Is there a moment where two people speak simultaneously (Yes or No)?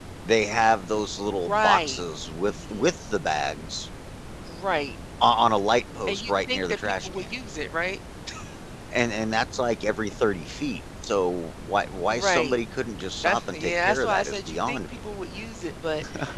Yes